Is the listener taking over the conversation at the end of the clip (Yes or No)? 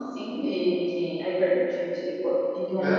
No